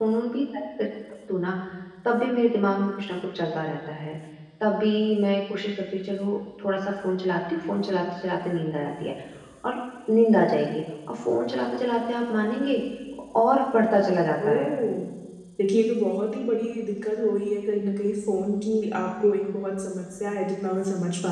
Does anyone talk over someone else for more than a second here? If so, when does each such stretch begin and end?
none

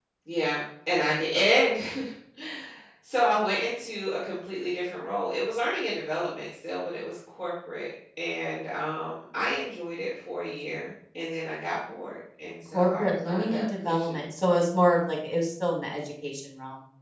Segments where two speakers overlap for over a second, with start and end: 12.7-14.2

